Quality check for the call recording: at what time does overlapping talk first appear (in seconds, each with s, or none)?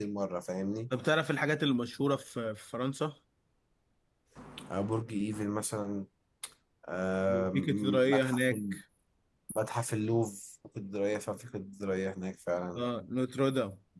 7.5 s